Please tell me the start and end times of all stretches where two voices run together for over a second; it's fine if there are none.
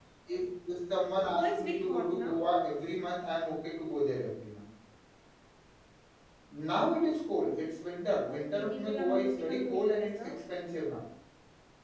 1.2-2.4, 8.2-10.3

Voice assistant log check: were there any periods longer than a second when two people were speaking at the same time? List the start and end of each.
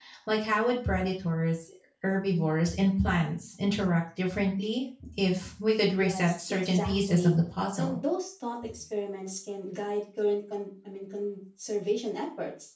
5.9-7.3

